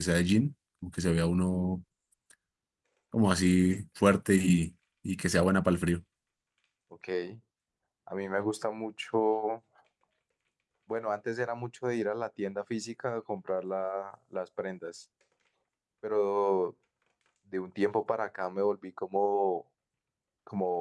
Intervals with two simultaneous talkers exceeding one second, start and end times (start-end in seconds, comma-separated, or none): none